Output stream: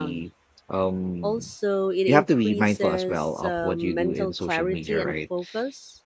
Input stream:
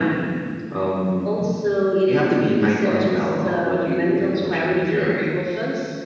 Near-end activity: none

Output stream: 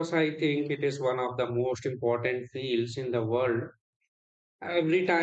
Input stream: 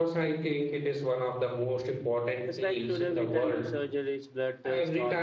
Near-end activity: present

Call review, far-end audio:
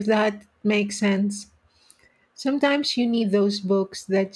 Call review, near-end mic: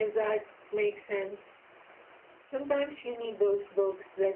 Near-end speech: none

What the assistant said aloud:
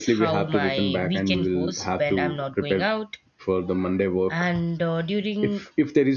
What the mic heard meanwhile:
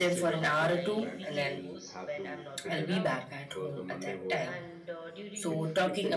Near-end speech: present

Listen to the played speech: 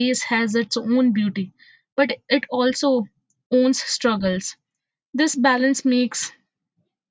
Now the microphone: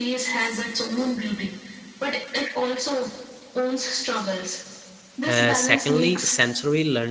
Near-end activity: present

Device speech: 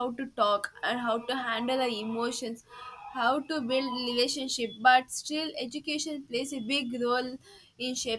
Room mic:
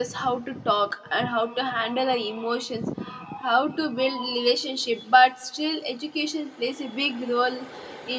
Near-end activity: none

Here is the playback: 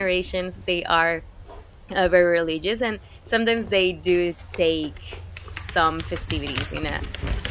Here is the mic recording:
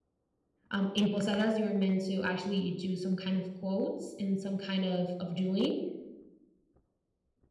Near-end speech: present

